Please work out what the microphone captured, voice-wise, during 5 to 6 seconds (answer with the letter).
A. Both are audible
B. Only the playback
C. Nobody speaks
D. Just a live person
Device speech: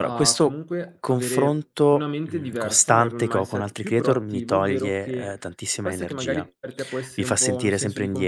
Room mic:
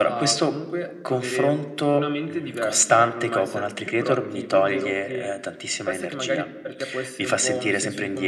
B